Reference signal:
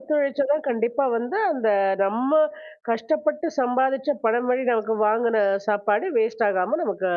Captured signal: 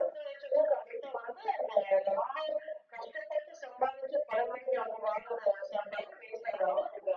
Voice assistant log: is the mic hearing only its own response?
Yes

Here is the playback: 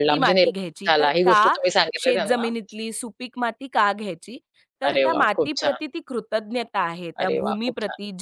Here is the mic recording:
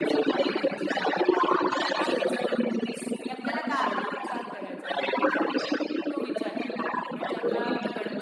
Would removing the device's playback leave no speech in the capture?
No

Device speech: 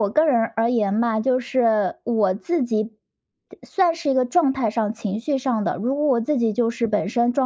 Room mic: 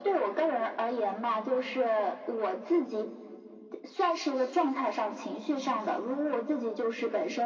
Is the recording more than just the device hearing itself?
No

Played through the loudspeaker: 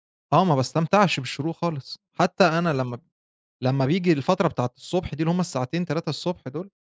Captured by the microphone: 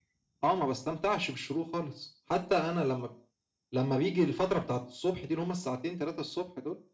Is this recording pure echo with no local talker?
Yes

